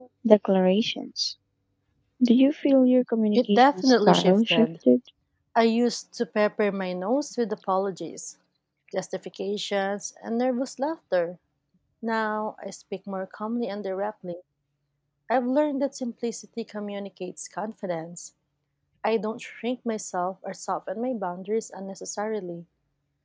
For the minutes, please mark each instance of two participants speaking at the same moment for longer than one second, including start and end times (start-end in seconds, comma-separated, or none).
3.3-4.7